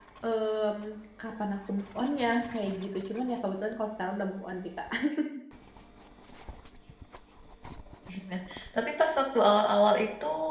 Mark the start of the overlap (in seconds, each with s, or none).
none